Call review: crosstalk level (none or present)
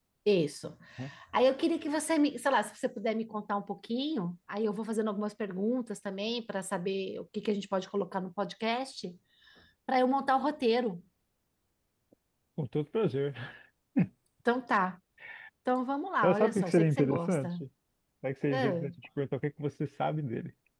present